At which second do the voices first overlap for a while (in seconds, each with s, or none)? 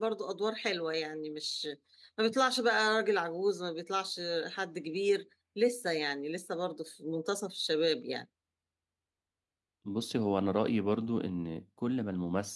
none